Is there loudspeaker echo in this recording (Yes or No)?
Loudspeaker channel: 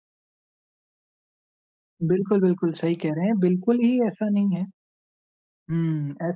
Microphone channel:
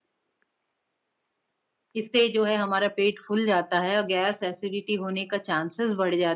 No